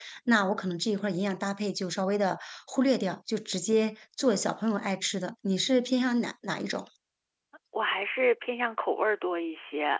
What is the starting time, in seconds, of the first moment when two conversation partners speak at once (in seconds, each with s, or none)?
none